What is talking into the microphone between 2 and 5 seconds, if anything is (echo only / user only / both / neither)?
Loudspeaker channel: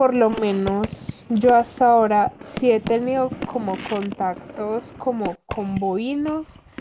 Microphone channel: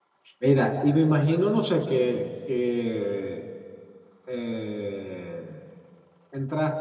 user only